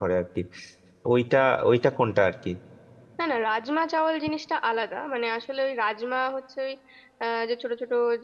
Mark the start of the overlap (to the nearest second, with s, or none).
none